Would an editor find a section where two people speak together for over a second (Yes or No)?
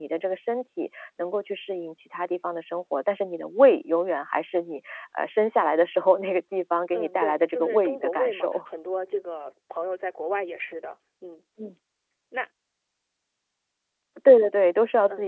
Yes